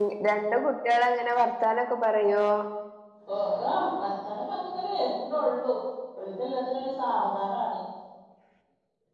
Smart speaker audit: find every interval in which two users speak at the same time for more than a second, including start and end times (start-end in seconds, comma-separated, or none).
none